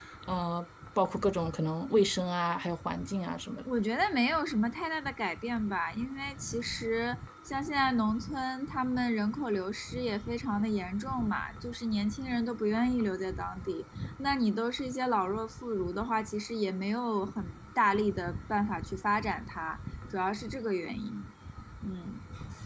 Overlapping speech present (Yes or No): No